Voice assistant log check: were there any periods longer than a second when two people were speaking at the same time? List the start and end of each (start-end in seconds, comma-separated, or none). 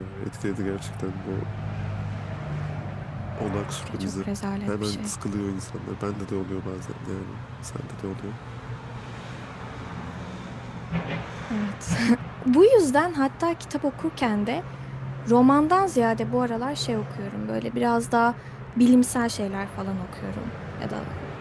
none